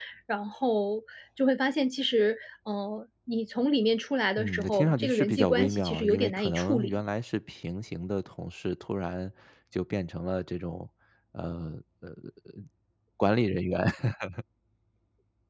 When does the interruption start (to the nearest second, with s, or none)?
4 s